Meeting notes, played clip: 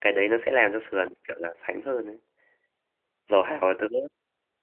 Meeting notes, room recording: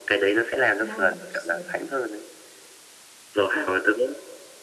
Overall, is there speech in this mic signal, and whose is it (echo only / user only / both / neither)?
both